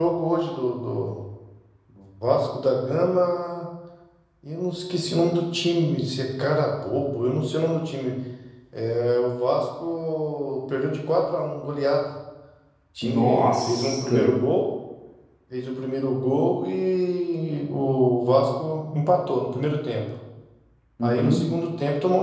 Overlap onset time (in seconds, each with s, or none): 13.0 s